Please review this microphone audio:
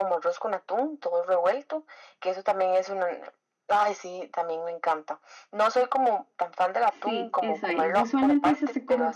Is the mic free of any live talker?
No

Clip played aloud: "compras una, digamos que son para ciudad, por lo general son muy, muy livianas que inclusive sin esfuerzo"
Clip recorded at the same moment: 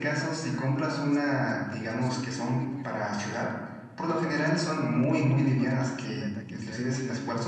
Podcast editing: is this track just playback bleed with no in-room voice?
No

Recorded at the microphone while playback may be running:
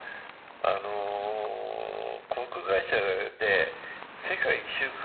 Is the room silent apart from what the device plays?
Yes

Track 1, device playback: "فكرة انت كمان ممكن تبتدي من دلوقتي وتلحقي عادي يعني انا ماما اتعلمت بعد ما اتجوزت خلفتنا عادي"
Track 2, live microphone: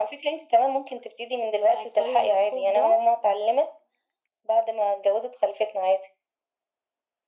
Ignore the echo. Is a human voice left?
Yes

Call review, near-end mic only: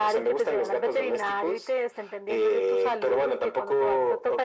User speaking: No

